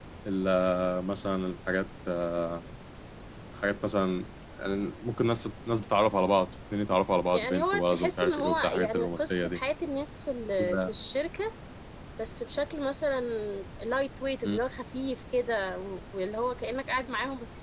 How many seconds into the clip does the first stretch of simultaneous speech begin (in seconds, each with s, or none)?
7.3 s